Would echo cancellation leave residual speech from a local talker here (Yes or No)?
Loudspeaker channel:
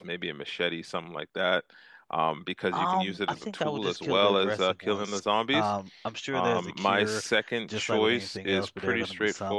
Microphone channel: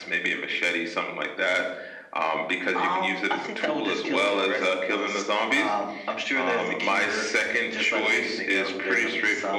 No